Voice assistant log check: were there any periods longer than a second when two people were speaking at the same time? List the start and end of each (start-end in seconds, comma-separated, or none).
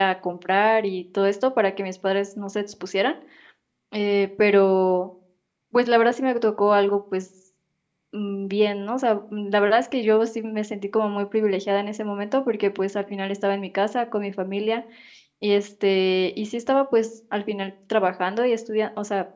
none